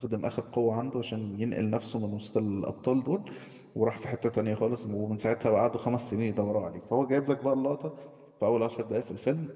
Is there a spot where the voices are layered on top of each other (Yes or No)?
No